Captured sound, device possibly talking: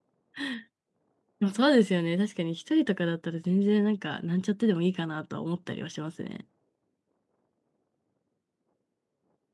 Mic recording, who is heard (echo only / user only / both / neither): user only